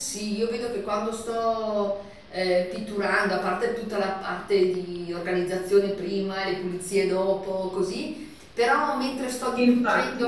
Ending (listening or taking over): listening